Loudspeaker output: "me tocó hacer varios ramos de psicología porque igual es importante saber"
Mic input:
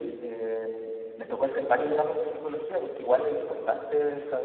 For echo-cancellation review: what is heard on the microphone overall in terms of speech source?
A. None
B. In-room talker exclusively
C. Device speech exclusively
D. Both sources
C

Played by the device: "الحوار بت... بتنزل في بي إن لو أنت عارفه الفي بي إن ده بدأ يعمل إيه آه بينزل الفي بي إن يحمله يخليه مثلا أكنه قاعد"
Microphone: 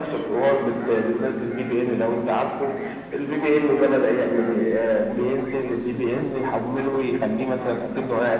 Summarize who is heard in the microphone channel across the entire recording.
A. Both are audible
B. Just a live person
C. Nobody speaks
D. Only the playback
A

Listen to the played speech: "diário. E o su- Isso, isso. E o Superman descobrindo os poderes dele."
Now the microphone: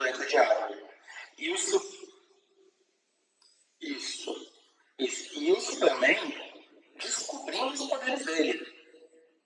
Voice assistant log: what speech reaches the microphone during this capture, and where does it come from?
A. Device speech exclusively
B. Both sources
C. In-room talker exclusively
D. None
A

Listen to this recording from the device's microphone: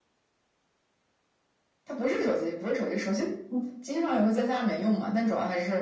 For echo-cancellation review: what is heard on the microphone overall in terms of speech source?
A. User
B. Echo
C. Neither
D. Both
B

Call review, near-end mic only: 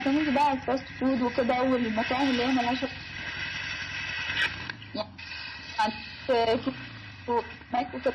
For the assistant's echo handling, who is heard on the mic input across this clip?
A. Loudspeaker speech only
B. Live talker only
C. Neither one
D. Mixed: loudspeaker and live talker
A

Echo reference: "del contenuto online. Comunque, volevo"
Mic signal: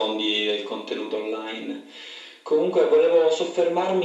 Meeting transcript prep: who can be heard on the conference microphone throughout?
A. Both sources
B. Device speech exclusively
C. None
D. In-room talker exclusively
B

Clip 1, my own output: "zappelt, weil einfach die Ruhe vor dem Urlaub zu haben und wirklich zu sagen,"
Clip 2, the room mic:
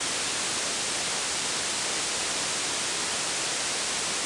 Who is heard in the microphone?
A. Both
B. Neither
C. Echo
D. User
B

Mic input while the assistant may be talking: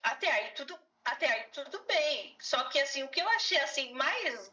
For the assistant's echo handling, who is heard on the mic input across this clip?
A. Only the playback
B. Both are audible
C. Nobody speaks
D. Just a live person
A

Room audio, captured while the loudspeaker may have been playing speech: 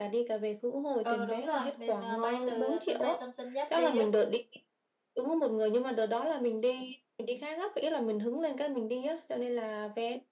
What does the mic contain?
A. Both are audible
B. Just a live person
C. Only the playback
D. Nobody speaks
A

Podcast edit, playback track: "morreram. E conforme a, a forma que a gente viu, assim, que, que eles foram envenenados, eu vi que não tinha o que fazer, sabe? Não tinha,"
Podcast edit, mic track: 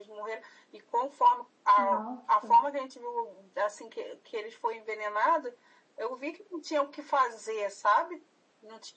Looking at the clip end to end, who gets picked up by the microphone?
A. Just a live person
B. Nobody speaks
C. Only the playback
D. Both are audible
D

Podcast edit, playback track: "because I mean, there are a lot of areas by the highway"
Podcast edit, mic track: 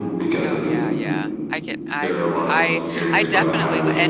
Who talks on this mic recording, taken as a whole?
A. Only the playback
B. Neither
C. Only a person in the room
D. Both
D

